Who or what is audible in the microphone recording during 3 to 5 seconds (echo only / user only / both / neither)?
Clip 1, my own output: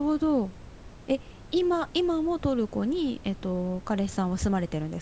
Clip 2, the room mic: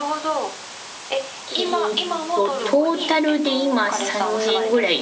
both